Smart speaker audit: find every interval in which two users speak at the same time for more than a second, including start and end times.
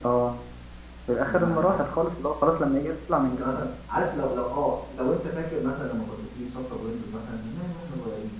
none

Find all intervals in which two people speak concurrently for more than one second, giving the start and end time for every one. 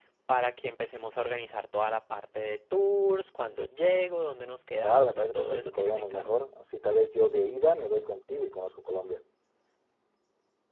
4.8-6.3

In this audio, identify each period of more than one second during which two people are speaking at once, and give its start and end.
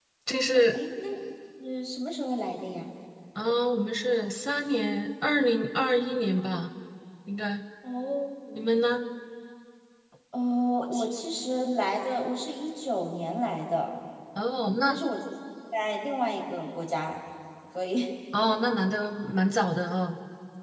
none

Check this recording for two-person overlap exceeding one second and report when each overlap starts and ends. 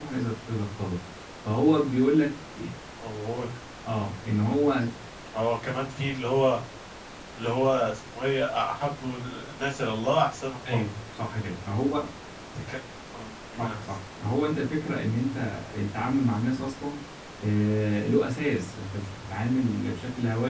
none

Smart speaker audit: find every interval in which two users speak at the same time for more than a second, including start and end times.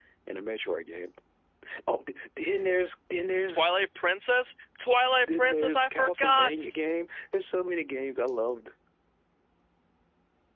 5.2-6.8

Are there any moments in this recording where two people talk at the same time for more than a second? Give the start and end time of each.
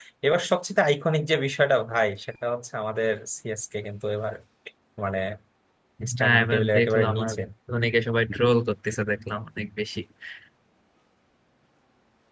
6.2-7.4

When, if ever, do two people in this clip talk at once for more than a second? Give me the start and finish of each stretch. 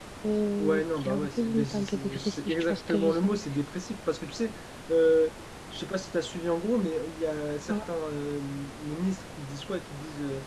0.6-3.3

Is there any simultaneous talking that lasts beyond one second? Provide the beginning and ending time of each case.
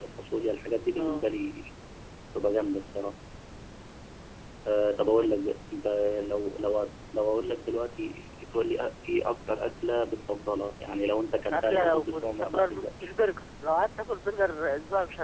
11.5-13.1

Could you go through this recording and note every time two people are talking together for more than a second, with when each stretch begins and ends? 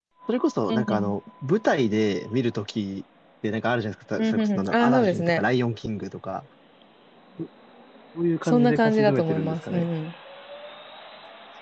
4.2-5.4, 8.4-9.9

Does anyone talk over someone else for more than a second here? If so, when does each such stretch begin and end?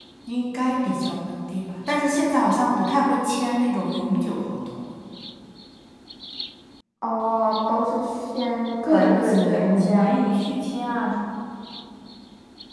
8.9-10.1

